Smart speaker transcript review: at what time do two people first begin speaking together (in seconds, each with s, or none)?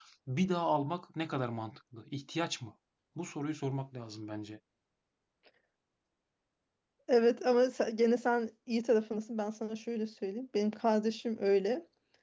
none